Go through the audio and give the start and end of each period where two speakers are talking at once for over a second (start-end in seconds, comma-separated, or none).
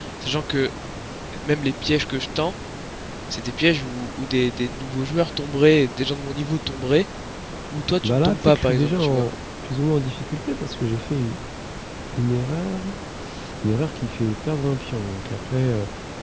8.0-9.2